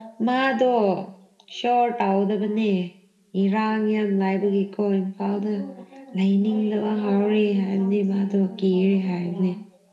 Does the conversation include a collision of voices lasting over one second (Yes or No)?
No